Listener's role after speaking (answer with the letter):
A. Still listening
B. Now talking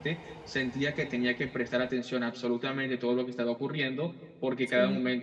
A